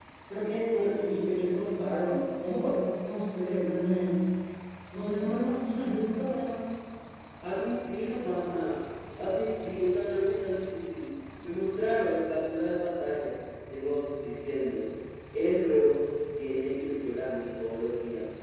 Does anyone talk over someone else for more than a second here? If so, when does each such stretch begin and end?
none

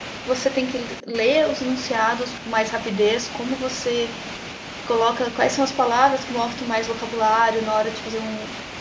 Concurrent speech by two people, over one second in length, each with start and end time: none

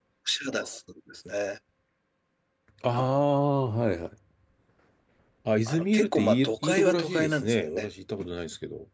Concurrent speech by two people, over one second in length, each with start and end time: 5.7-7.9

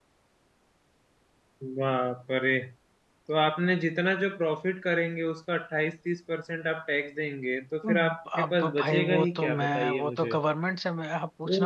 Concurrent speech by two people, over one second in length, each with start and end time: 7.9-10.4

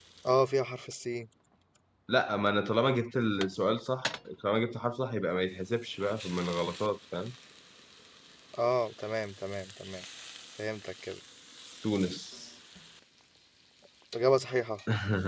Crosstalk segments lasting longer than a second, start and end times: none

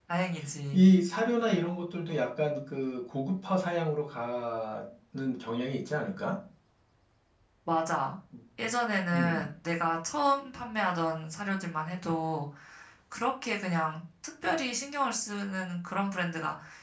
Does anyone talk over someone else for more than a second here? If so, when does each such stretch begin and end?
none

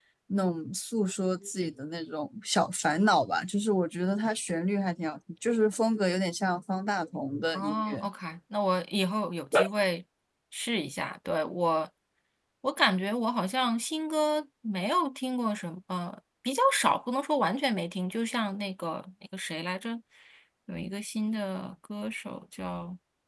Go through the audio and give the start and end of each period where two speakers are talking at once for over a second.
none

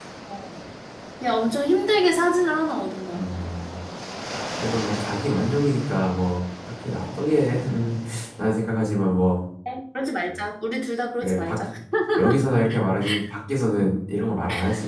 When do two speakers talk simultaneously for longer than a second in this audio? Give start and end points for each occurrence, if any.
none

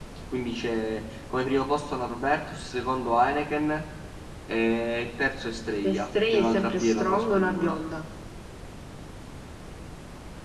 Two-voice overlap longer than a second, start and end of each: 5.8-7.8

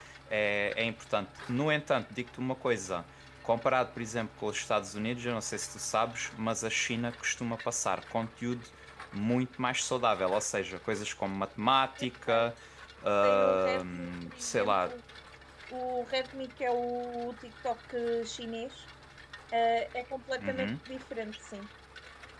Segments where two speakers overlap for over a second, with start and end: 13.2-14.9

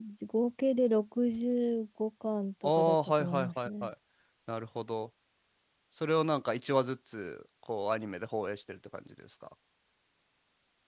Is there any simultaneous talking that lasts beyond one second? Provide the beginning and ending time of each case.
2.6-3.9

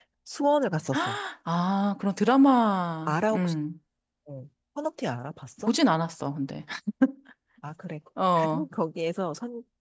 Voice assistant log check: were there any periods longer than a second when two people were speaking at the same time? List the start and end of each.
none

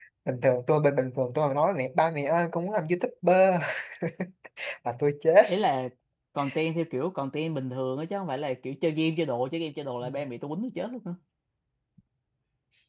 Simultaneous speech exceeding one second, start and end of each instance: none

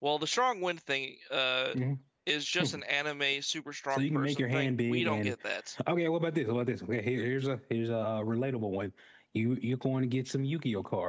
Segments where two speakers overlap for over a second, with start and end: 3.9-5.3

